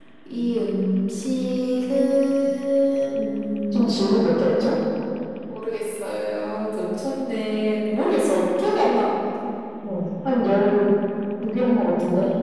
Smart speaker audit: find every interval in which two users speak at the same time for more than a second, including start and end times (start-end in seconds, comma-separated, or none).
none